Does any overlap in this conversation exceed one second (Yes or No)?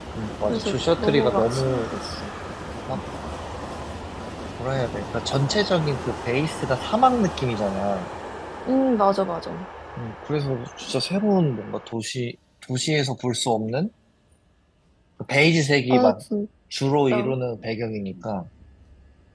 Yes